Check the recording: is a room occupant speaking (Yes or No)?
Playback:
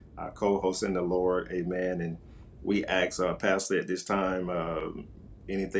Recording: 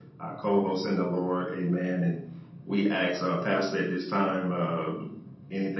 No